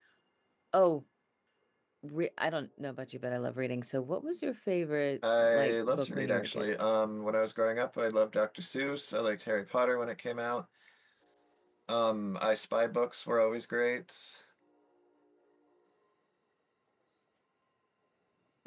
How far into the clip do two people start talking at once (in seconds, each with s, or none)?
5.2 s